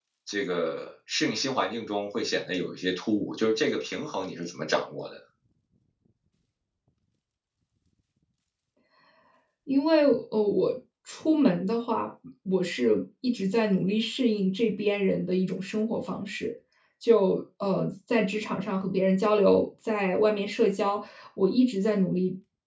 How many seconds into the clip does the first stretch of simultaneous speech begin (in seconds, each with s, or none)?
none